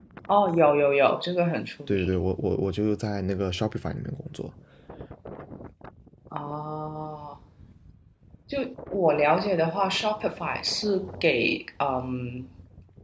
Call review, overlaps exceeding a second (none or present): none